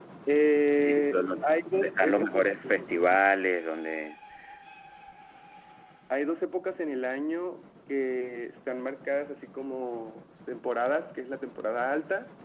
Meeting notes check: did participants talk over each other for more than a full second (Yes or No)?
Yes